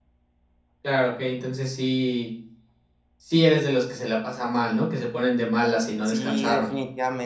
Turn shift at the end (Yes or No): Yes